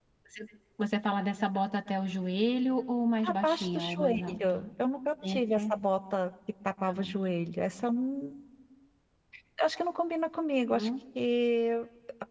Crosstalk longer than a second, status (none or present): present